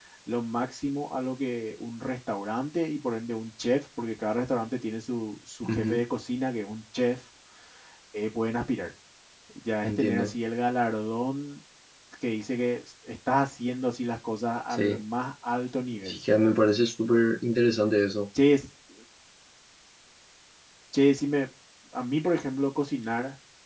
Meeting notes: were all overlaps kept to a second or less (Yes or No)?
Yes